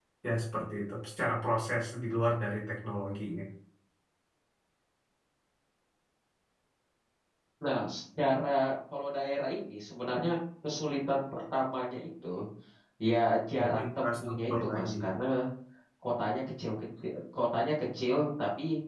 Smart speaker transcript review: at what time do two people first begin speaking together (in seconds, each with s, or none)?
13.6 s